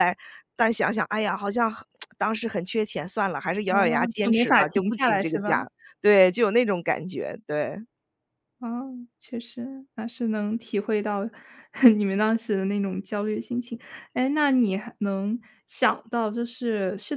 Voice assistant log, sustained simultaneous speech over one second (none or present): present